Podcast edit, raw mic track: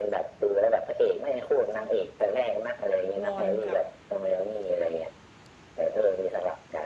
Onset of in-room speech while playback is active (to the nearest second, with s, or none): 3 s